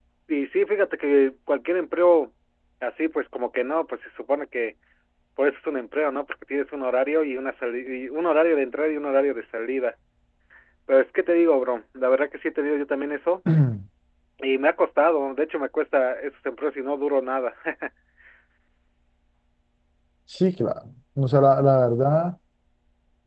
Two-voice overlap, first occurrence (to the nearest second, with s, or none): none